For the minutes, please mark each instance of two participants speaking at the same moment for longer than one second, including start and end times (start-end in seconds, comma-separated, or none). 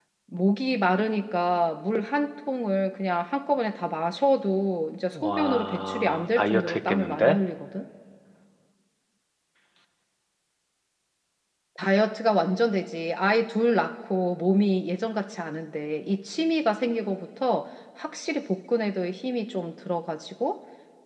5.2-7.4